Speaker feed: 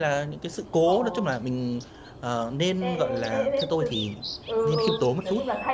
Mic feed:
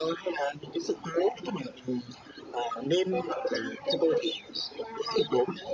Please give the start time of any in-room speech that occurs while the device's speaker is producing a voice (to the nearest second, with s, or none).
none